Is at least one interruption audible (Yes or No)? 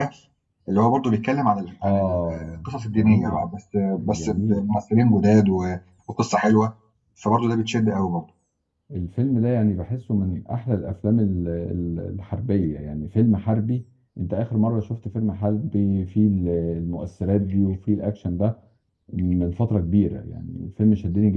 Yes